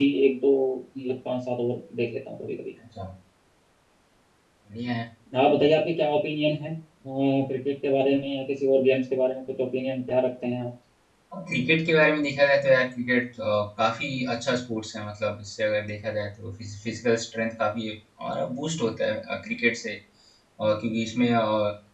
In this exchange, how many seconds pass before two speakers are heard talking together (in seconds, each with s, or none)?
none